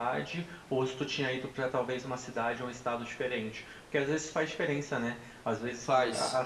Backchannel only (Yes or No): Yes